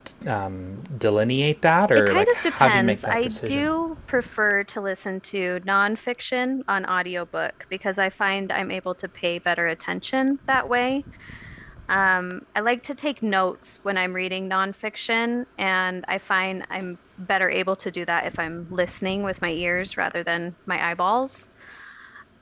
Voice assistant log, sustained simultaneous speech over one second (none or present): present